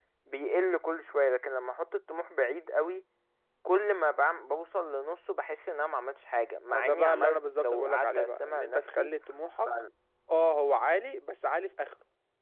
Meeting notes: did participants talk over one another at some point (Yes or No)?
Yes